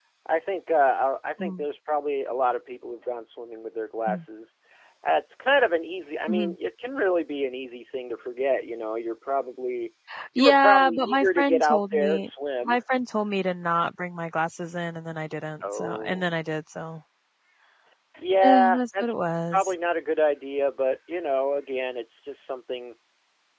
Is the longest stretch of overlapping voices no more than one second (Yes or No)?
No